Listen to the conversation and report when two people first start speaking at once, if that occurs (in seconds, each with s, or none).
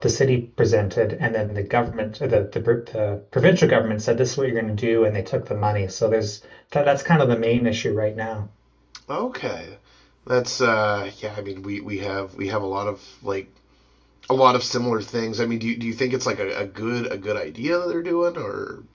none